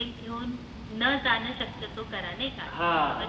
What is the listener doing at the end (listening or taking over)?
taking over